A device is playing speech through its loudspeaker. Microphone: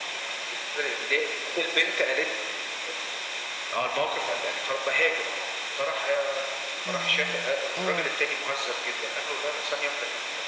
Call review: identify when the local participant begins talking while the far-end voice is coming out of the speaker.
6.8 s

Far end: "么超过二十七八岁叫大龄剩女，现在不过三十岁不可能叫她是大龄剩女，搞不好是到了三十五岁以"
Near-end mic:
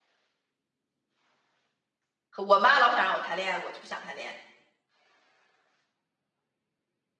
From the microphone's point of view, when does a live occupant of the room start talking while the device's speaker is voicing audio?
2.4 s

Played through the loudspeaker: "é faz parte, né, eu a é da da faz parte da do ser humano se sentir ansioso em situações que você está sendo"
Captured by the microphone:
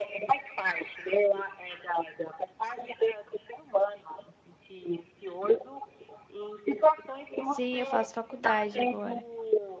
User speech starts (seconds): 7.4 s

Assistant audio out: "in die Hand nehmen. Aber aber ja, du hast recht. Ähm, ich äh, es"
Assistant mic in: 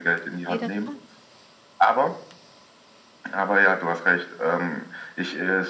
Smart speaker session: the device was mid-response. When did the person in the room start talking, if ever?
0.5 s

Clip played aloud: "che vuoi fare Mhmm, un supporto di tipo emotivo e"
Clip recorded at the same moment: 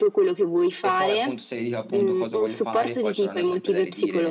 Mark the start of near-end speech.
0.6 s

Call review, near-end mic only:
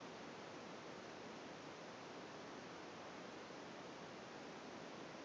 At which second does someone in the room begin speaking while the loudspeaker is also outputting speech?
none

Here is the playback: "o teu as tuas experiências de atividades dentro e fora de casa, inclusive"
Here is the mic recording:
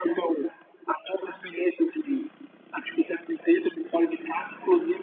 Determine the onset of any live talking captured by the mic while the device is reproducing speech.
none

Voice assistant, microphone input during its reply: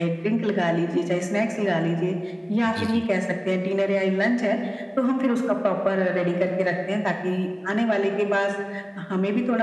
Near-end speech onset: 2.7 s

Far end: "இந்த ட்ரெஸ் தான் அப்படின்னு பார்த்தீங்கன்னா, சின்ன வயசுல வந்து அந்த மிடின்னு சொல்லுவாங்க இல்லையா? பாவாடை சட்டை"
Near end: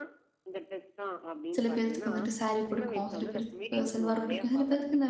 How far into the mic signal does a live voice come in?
1.6 s

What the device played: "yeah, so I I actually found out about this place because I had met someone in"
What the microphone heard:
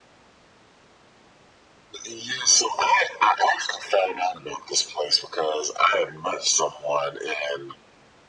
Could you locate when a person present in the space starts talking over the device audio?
none

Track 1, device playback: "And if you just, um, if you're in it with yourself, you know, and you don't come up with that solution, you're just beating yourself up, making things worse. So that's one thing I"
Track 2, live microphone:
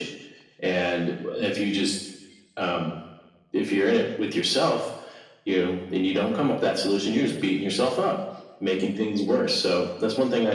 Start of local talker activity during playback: none

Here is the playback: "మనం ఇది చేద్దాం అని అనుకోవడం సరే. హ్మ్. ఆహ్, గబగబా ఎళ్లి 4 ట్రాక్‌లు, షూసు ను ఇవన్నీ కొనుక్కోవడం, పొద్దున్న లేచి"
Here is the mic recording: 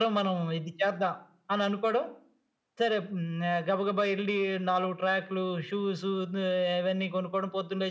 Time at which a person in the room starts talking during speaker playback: none

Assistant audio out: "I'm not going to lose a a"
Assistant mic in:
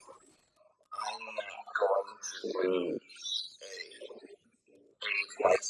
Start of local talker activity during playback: none

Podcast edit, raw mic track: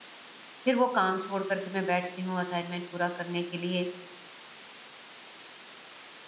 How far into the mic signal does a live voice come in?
0.6 s

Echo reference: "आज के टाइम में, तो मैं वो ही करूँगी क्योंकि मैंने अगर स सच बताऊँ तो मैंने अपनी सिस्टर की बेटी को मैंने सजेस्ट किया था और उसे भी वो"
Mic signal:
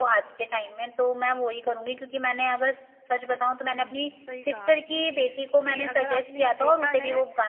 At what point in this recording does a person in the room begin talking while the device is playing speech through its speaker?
3.8 s

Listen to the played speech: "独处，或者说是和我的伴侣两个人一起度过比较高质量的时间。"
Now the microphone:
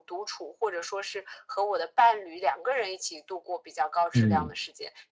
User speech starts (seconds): 4.1 s

